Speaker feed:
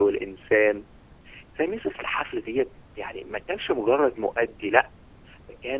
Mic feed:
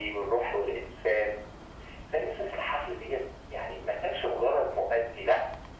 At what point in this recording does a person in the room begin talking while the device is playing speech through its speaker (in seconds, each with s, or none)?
none